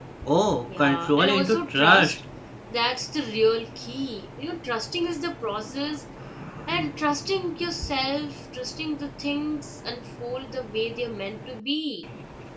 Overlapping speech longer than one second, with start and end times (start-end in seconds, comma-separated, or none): 0.8-2.2